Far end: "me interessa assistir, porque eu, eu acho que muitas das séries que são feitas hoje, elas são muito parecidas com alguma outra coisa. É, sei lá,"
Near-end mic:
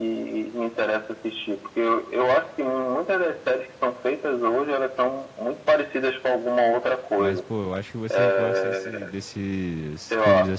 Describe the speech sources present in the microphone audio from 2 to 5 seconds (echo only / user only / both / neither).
echo only